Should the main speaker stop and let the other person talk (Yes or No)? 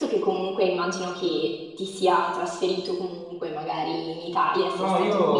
Yes